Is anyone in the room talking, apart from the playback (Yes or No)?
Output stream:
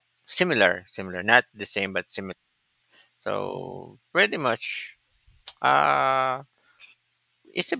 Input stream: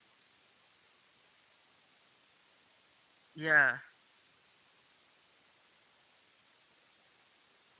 Yes